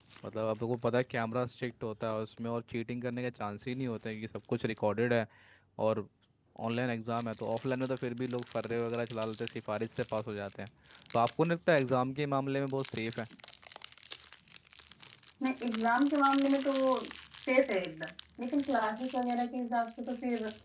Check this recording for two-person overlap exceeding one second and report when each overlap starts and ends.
none

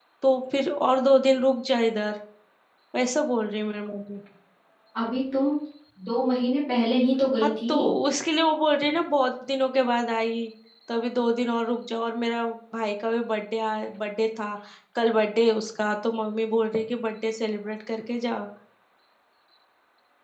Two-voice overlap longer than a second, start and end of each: none

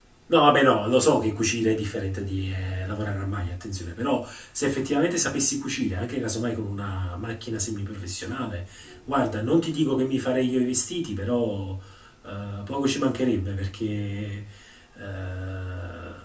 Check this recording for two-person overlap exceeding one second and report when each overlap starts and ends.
none

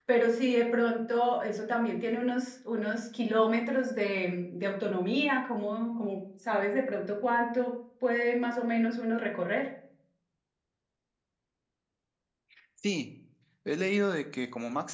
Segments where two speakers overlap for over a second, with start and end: none

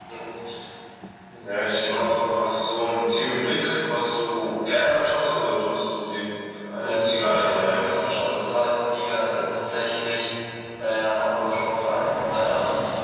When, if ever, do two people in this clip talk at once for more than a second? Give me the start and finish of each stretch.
6.8-8.3

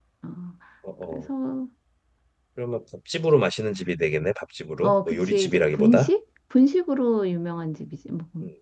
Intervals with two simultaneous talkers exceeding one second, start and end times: 4.8-6.1

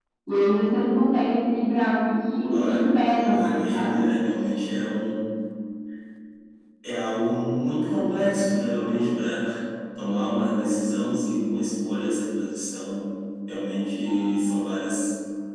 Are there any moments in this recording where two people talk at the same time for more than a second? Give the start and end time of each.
2.5-3.9

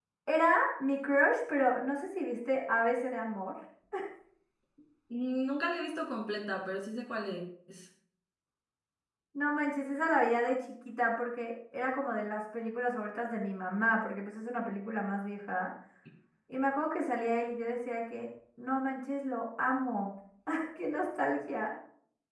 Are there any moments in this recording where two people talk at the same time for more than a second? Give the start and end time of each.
none

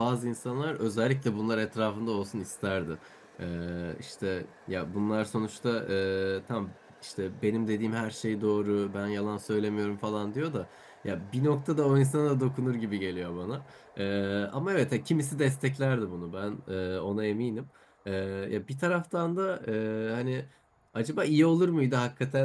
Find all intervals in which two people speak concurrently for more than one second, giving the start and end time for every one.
none

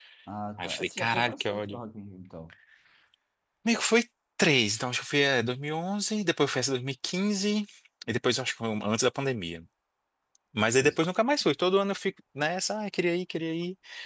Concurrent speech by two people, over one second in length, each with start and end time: 0.6-1.8

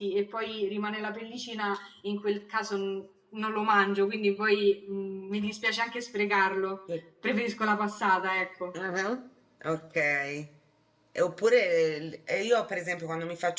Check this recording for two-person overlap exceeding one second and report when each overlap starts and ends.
none

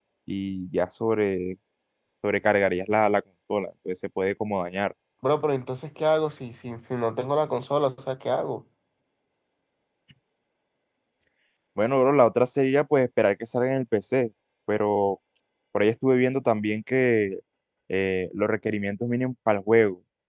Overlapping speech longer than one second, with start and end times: none

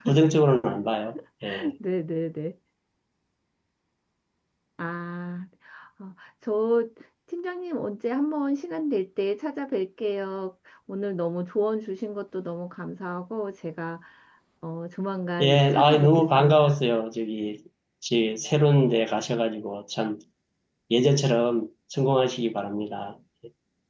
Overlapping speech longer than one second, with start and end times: 15.4-16.8

